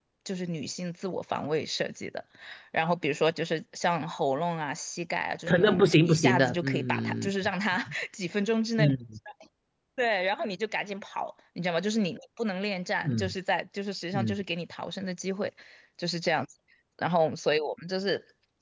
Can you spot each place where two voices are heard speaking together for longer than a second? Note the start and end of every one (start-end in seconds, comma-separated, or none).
5.5-7.3